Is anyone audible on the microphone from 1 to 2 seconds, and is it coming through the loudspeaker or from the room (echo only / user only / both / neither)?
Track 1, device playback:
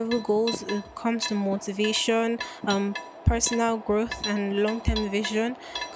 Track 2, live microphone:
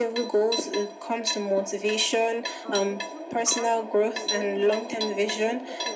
echo only